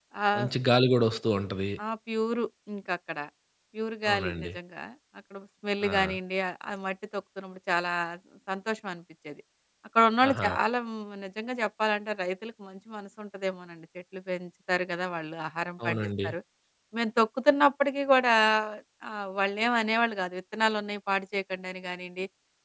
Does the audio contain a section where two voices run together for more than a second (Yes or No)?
No